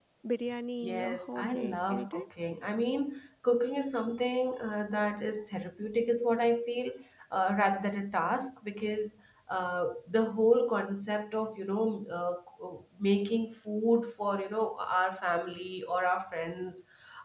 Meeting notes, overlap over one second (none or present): present